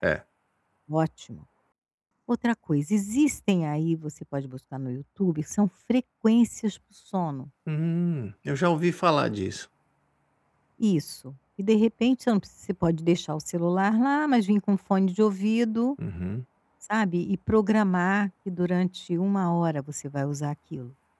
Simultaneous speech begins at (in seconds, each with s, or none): none